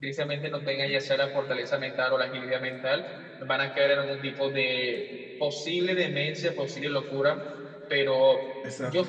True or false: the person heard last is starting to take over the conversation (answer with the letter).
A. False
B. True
A